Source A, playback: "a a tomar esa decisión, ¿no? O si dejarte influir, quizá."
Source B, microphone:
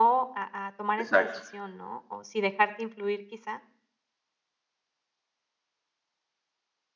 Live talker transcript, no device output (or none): exacto,